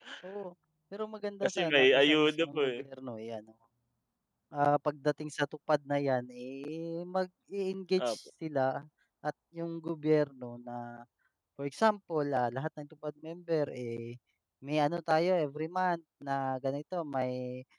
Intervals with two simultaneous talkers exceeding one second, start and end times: 1.4-2.8

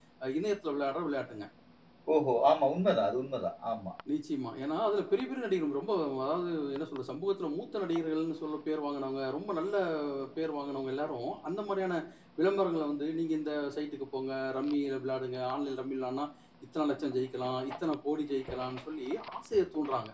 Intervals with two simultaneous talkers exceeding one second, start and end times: none

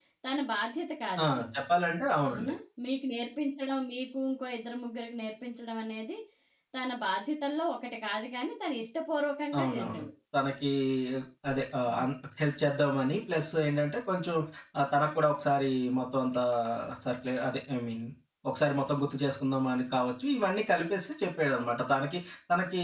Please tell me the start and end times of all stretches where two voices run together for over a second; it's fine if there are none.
none

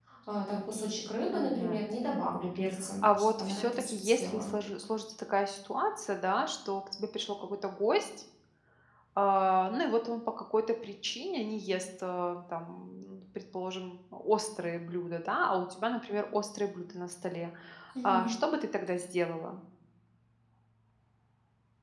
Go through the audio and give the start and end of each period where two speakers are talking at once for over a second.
3.0-4.5

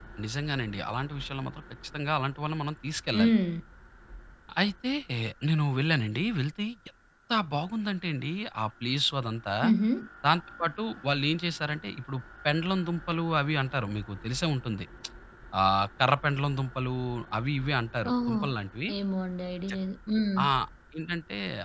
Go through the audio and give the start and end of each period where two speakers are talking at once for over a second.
none

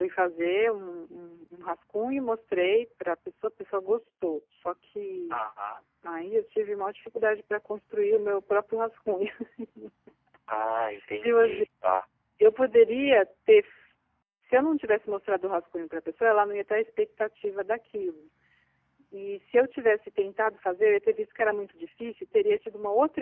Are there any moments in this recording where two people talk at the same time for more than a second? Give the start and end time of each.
none

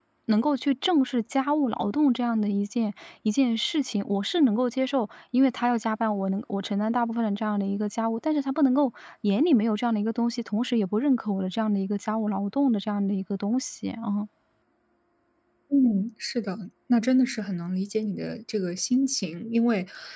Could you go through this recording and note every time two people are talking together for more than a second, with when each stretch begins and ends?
none

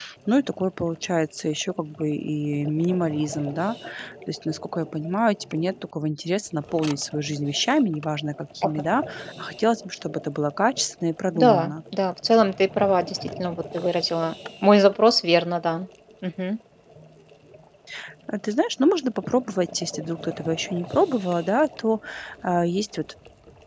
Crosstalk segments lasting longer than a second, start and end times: none

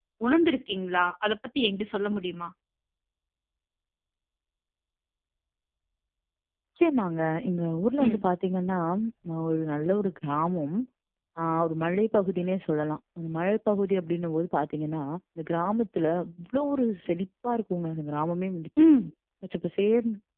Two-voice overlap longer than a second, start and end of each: none

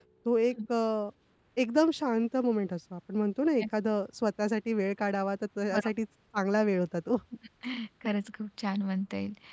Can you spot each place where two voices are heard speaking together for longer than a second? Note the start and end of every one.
none

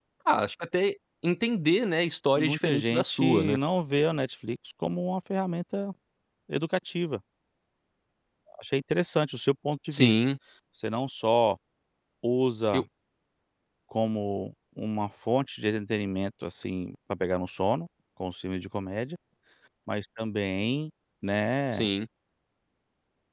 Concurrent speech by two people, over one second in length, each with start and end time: 2.4-3.6

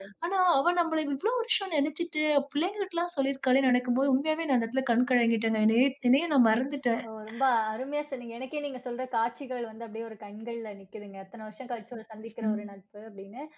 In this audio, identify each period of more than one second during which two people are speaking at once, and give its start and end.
none

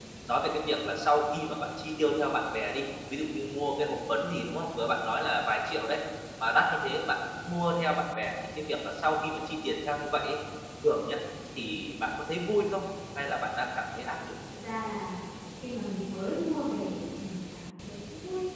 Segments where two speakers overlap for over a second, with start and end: none

